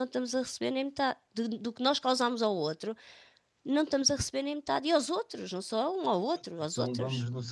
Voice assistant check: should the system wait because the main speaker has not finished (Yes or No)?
No